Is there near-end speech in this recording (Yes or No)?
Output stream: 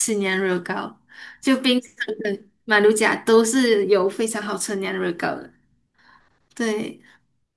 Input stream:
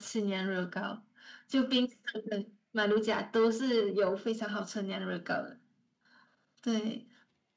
No